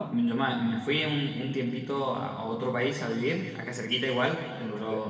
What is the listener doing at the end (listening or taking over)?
listening